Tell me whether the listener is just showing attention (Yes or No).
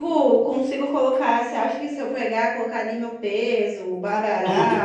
Yes